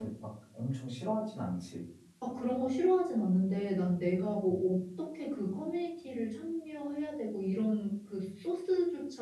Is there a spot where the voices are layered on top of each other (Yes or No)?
No